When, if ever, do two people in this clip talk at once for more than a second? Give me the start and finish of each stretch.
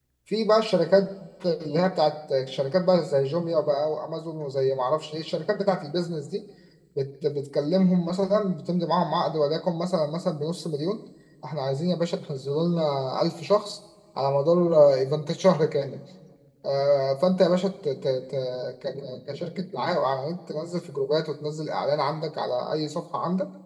none

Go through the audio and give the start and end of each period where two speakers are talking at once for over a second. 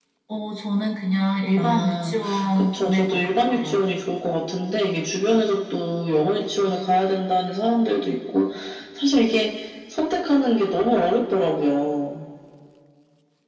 1.6-3.9

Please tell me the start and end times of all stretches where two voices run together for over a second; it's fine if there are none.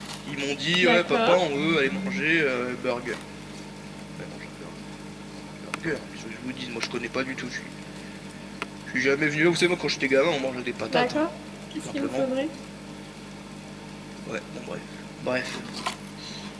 none

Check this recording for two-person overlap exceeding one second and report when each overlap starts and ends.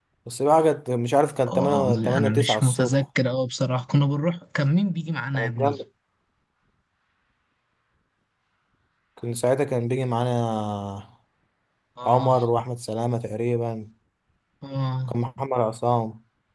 1.5-3.0

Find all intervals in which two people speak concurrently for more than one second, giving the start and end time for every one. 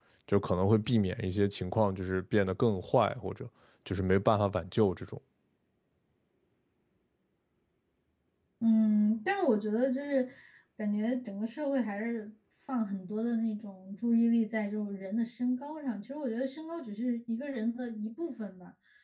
none

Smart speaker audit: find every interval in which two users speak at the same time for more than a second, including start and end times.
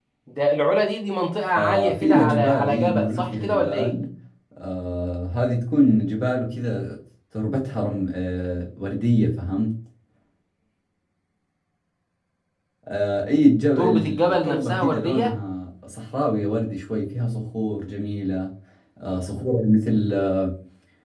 1.6-4.0, 13.8-15.3

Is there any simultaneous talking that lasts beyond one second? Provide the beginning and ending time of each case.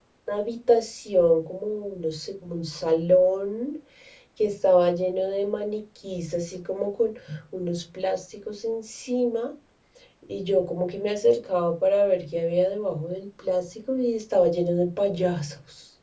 none

